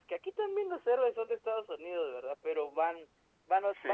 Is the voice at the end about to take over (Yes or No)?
No